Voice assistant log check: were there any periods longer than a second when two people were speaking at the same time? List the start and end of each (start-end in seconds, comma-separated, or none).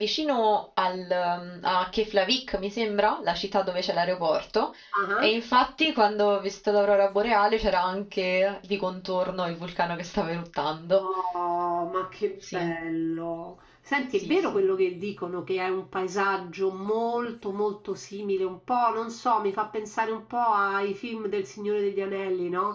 none